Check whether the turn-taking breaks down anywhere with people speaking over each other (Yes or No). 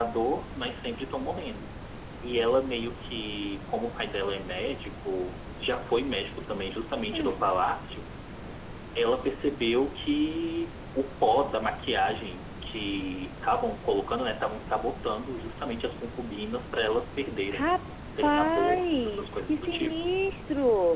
Yes